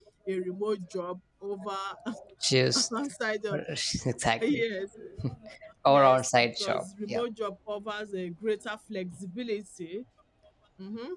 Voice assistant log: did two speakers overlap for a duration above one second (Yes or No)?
Yes